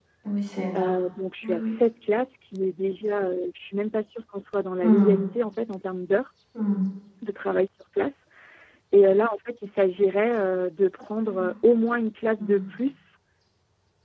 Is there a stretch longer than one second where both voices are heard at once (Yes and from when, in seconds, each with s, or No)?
No